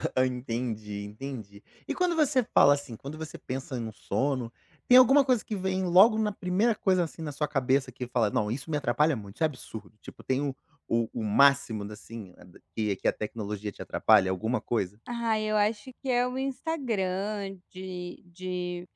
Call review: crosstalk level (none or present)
none